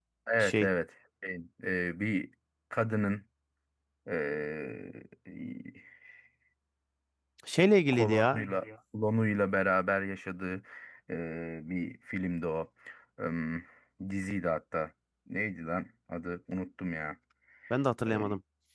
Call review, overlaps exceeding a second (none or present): none